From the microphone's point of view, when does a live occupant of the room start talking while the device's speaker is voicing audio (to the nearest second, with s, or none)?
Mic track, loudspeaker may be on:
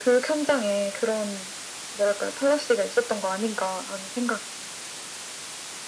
none